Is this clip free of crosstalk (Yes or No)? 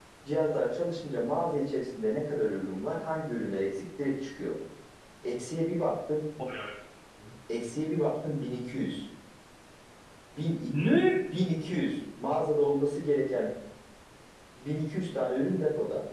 Yes